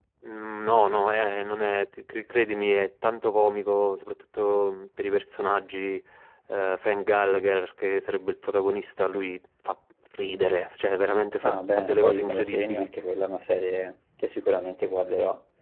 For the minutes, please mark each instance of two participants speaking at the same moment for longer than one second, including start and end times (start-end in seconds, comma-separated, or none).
11.4-12.9